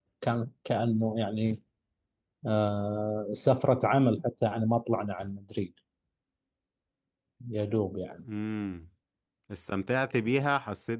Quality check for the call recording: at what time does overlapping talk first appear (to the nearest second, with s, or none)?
none